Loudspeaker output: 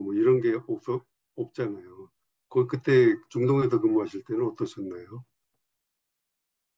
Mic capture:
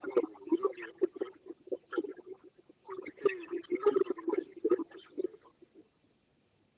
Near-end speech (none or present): none